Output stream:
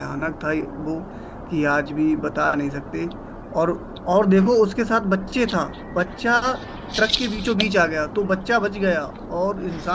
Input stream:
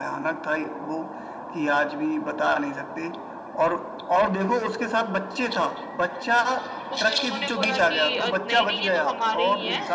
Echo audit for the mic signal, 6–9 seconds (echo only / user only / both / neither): both